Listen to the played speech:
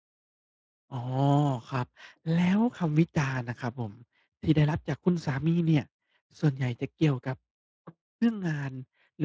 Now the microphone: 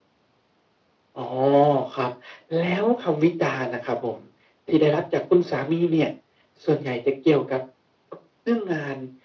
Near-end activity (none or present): none